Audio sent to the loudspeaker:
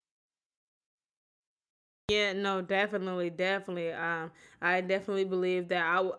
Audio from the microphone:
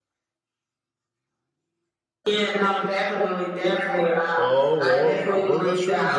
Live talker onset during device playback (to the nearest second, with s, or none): 4 s